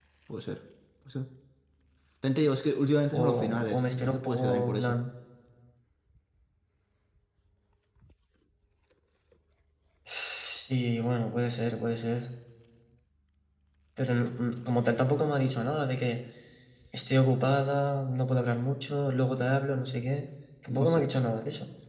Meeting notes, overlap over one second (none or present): present